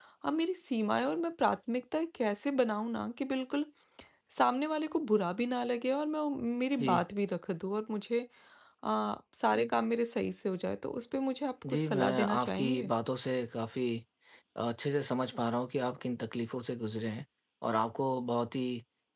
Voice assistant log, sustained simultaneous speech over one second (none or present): present